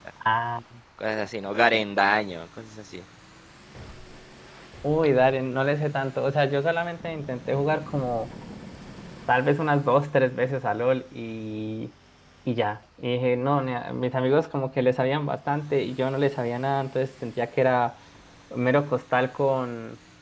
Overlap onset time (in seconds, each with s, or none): none